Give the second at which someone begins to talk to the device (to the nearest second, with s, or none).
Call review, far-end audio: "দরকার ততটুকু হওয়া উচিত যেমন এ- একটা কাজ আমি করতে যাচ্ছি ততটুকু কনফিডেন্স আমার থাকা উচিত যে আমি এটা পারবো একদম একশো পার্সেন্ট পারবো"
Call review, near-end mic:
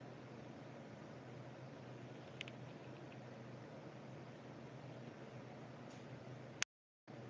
none